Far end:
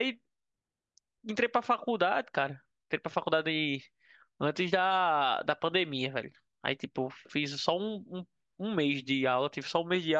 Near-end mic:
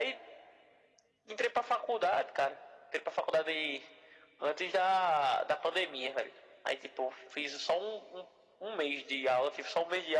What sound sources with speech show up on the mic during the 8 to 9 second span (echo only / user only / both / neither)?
echo only